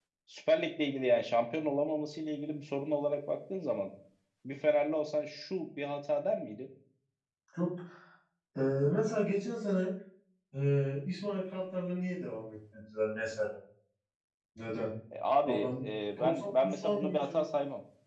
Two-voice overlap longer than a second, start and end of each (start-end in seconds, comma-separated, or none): 16.2-17.4